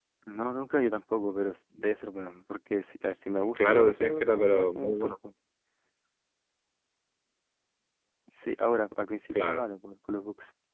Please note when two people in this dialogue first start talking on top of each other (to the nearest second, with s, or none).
4 s